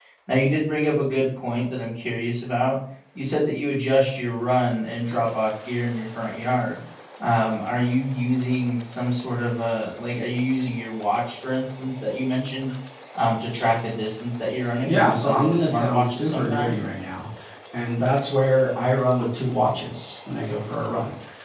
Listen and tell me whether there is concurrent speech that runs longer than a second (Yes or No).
Yes